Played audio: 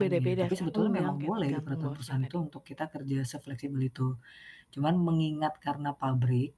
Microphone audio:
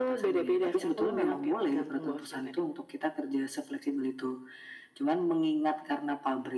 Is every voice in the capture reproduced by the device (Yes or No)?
Yes